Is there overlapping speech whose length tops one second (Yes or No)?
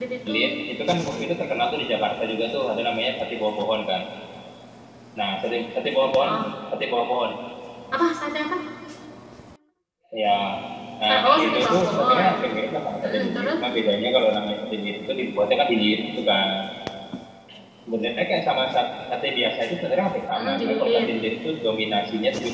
Yes